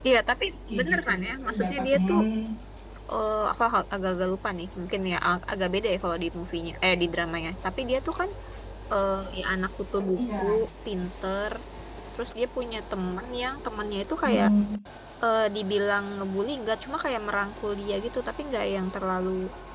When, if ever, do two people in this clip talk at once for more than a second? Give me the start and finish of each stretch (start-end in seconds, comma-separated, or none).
0.7-2.2